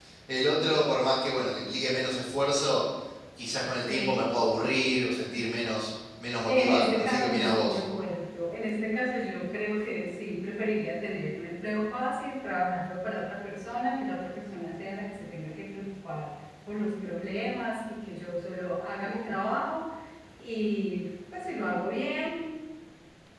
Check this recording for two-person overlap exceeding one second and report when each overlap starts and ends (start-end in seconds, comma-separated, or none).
6.4-7.8